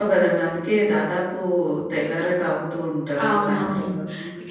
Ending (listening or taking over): taking over